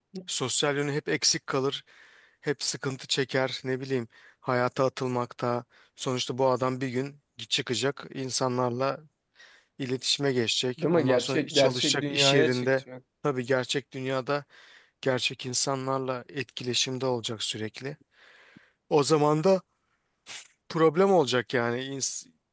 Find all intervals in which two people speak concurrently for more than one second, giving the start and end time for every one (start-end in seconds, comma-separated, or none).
10.8-12.7